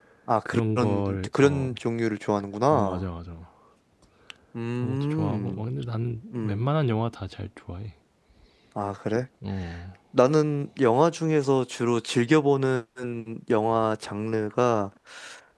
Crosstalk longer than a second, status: present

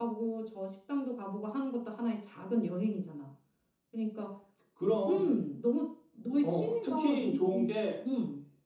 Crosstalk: present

